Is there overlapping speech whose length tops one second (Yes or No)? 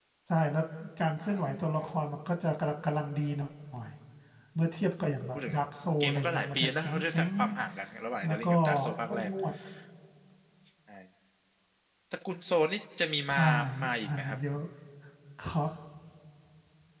Yes